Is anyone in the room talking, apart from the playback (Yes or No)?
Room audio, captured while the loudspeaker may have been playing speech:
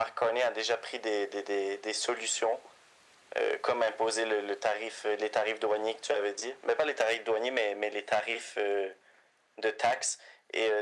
No